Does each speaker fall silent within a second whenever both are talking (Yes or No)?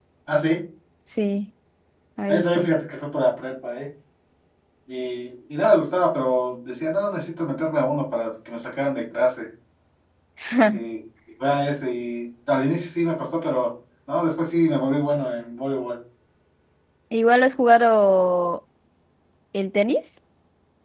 Yes